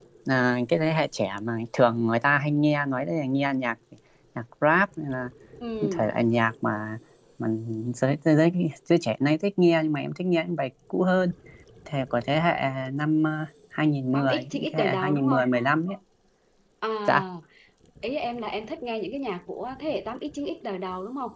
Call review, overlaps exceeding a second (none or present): present